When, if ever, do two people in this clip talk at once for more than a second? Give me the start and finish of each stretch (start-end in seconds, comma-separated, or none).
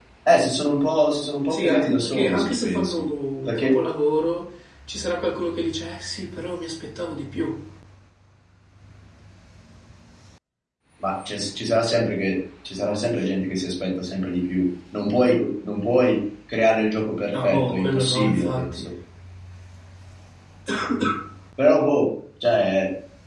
1.5-3.0, 17.3-18.9